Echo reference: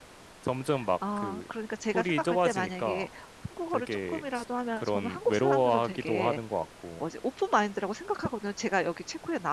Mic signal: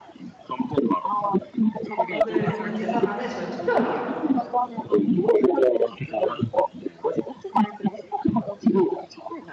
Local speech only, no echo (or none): 오늘 뭐 대사관에 저희 투표하러 가요.